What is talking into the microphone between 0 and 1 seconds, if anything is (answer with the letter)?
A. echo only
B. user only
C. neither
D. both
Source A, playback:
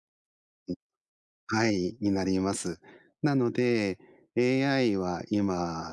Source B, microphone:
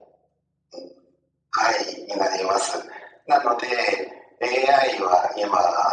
C